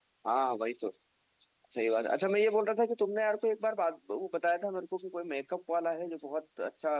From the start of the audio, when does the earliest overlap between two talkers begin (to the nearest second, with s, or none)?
none